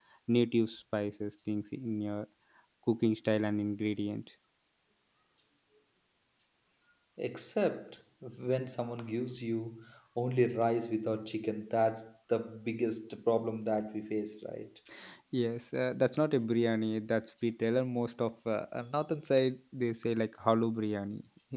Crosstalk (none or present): none